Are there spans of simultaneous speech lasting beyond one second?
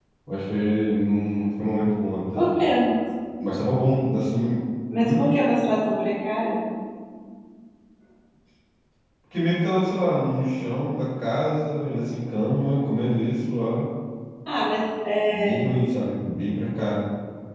No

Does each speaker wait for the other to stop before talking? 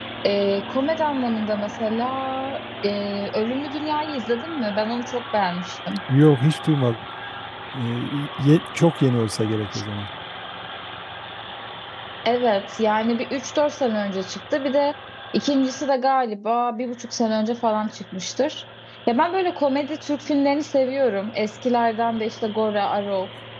Yes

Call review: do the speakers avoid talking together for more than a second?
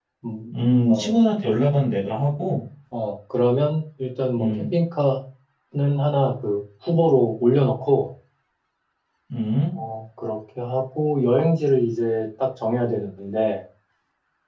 Yes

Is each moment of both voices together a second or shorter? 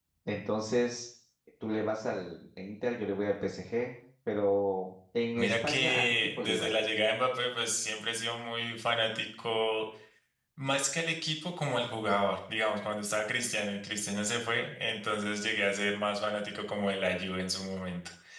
No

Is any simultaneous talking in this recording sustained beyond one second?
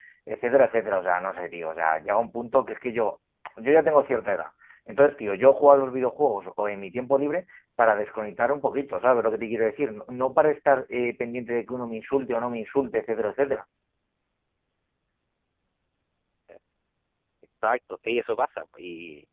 No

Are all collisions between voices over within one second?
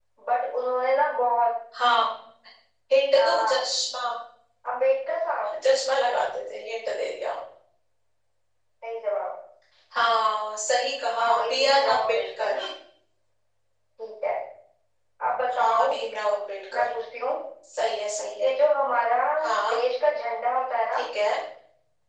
No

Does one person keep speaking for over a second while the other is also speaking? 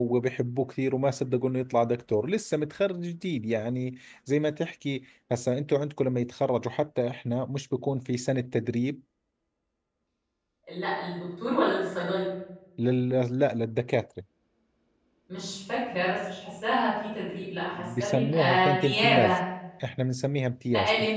Yes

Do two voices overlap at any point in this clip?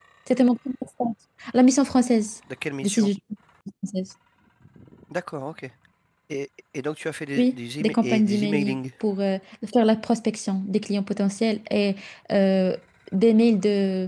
Yes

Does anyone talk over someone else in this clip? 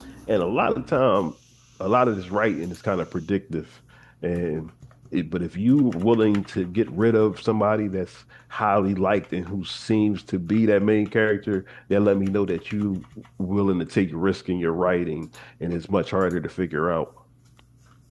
No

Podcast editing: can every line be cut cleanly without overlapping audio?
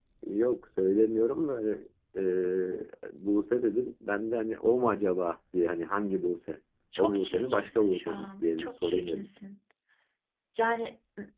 No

